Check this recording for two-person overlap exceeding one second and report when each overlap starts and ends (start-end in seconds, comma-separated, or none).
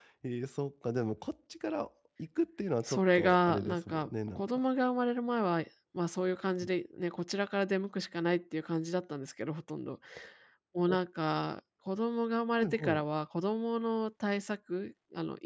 2.8-4.4